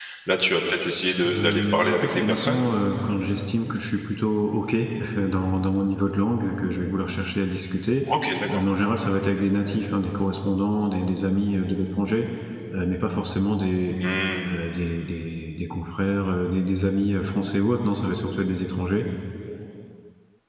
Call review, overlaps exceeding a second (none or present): present